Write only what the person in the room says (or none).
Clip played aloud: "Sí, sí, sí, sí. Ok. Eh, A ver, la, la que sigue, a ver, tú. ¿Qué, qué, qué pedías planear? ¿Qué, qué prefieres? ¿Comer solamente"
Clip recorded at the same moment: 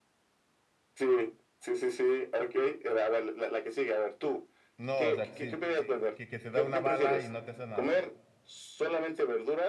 No, o sea, que sí, que, que, que te da una bala y no te hace nada.